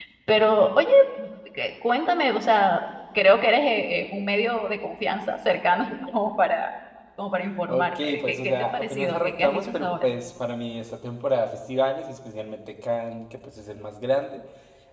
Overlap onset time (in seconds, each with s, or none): 7.7 s